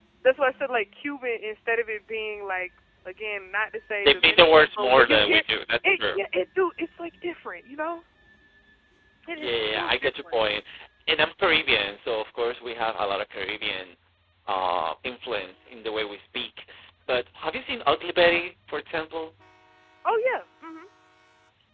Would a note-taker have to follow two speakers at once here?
Yes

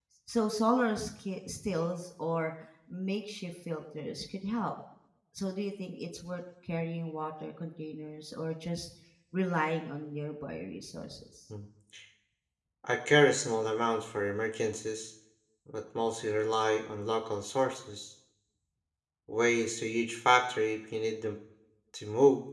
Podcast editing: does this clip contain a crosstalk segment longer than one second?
No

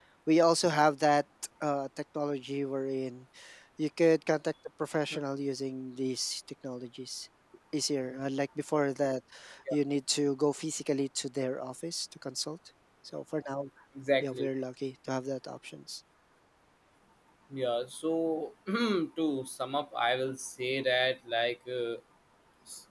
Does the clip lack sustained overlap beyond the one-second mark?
Yes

